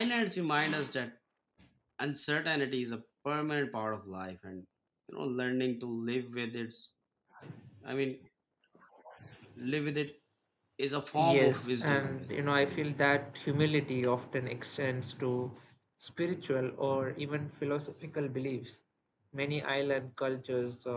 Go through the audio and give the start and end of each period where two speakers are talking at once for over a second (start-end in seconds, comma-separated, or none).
11.2-12.9